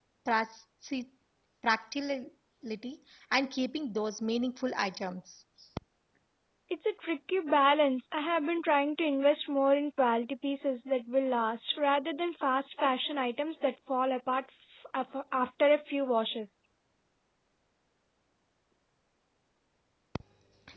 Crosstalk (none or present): none